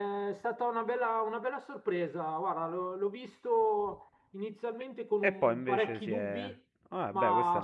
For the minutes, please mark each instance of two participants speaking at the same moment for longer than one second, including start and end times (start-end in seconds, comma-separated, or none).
5.2-6.5